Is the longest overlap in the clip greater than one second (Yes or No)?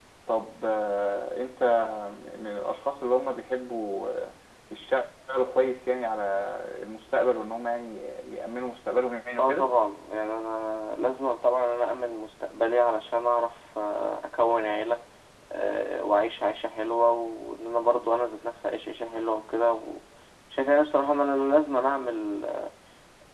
No